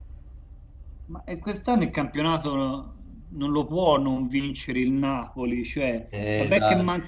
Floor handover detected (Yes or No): No